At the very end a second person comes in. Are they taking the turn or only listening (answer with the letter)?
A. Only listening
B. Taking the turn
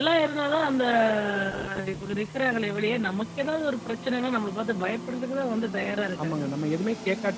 B